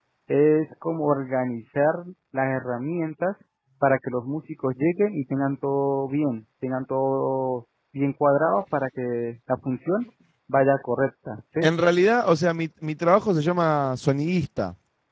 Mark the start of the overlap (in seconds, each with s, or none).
none